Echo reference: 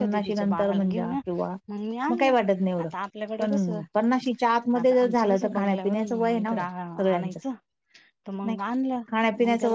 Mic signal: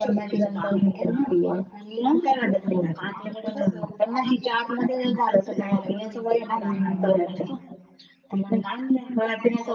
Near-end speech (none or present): present